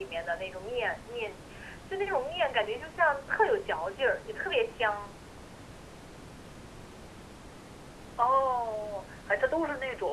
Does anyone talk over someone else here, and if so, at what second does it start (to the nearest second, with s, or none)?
none